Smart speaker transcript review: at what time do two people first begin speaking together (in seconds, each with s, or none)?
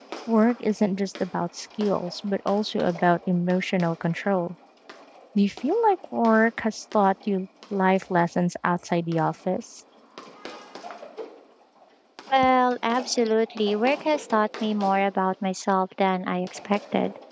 none